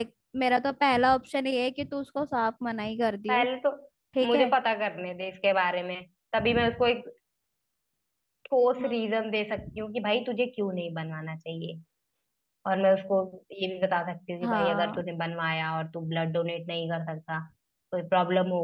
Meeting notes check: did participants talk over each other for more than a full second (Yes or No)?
No